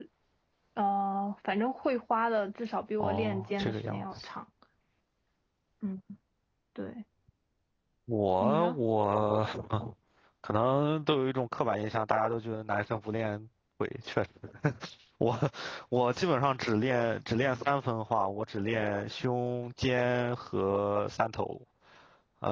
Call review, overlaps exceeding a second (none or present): present